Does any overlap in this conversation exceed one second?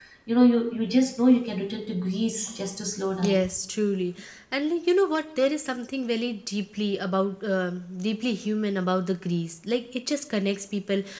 No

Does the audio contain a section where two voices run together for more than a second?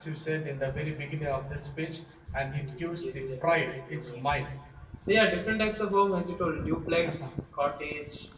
Yes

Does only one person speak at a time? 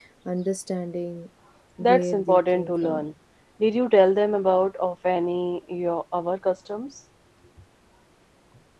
No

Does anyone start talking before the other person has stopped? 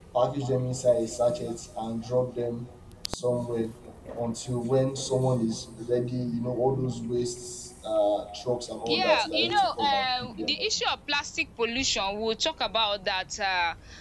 Yes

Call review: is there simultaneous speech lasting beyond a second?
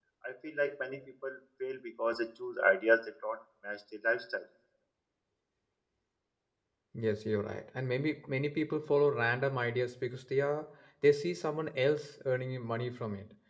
No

